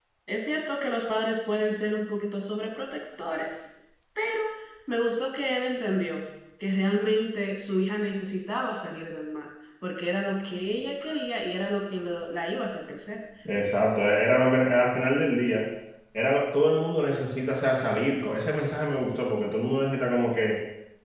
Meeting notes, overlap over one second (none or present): none